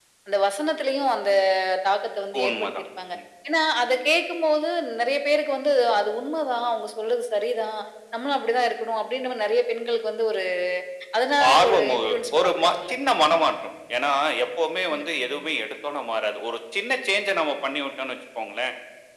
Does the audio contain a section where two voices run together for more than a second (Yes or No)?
Yes